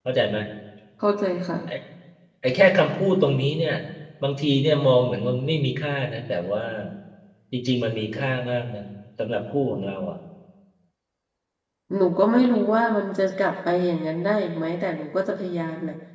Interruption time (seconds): none

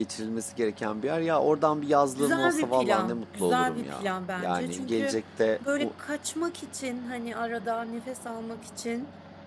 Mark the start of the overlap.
2.1 s

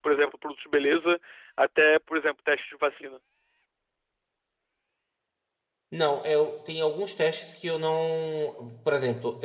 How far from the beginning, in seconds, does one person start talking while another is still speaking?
none

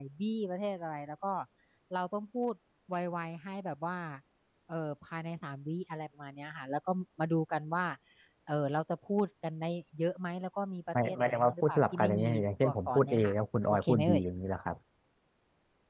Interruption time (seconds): 10.9 s

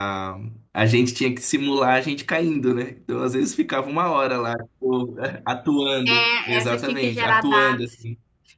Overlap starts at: 6.0 s

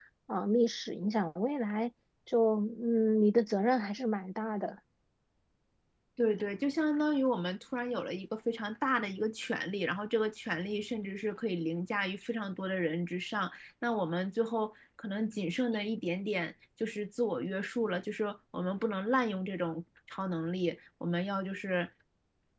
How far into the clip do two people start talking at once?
none

